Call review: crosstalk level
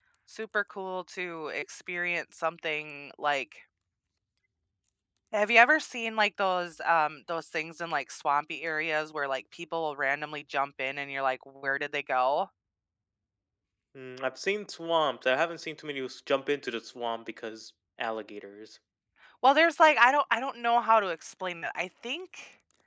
none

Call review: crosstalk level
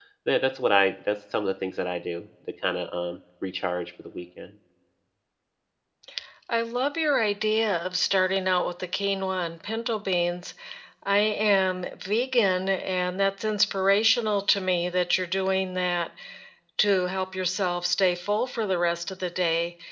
none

